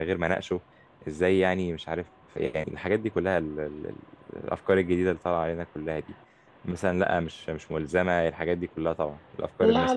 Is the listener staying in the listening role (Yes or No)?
No